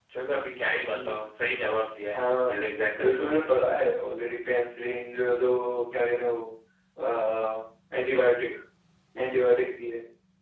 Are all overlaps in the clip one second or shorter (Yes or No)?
Yes